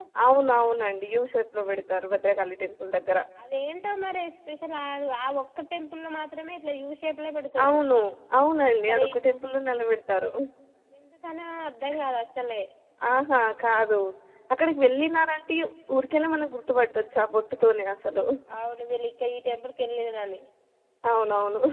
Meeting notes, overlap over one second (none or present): none